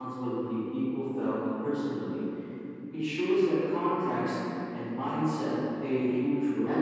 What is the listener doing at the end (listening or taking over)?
taking over